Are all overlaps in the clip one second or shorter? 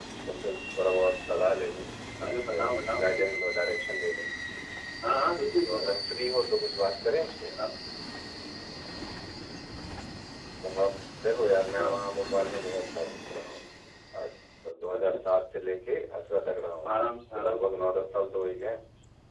No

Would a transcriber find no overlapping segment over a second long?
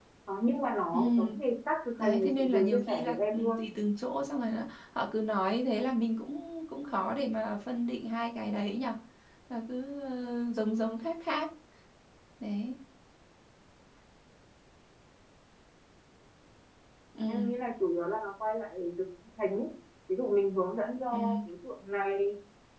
No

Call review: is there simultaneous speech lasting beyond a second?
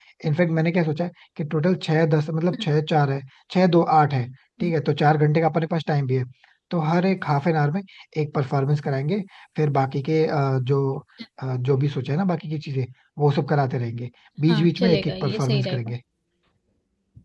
Yes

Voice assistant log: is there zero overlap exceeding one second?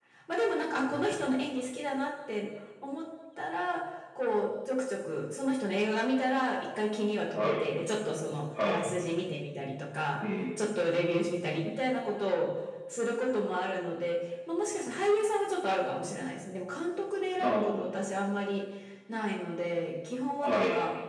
Yes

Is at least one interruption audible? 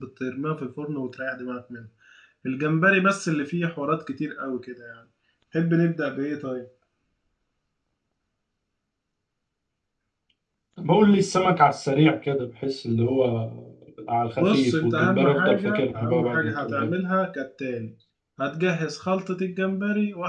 Yes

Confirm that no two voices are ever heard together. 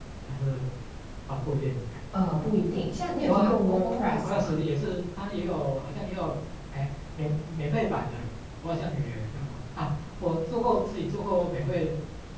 No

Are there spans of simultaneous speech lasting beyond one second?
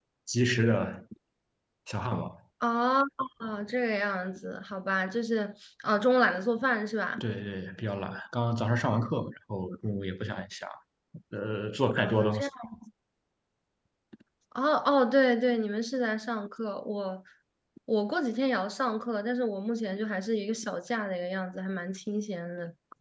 No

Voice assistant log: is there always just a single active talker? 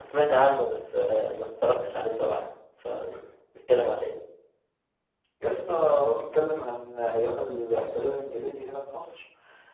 Yes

